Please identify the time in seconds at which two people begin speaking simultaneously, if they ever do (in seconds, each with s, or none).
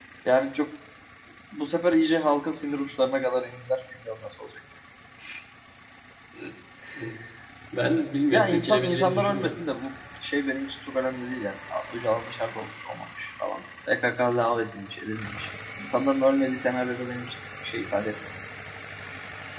8.3 s